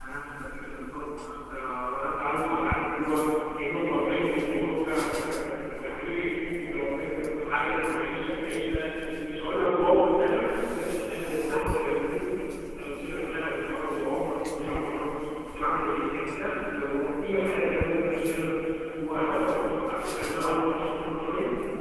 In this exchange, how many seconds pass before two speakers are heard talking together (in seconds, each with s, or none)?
none